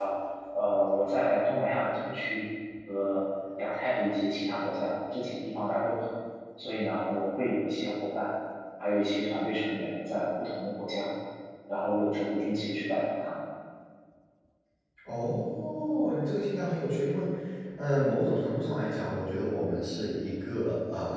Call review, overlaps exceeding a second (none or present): none